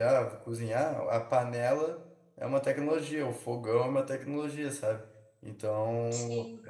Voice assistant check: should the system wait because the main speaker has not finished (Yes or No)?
Yes